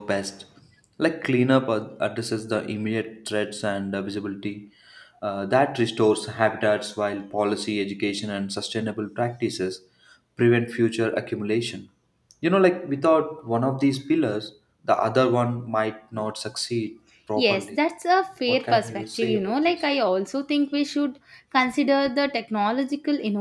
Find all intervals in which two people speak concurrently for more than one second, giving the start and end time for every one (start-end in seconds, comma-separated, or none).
18.5-19.8